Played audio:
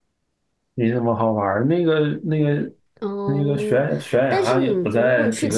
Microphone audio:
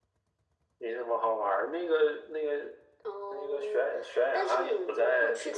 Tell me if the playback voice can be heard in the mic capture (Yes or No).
Yes